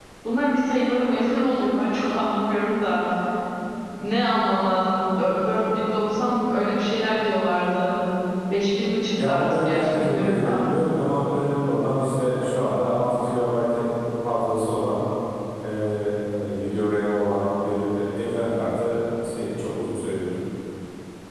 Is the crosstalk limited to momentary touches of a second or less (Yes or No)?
No